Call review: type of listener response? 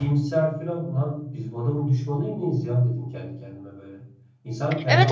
taking over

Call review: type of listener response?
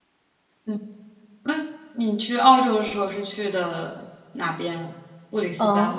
taking over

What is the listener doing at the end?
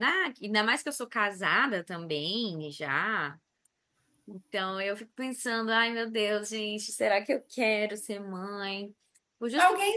taking over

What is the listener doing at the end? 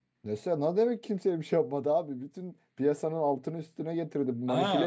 taking over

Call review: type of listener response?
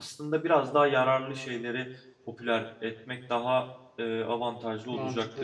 taking over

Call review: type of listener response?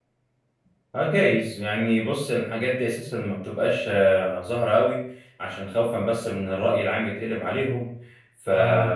listening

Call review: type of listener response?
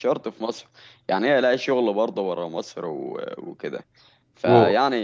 listening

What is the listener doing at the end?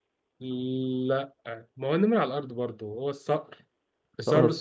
listening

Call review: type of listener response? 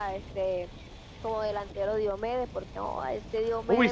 taking over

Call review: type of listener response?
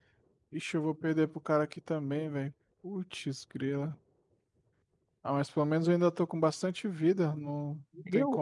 taking over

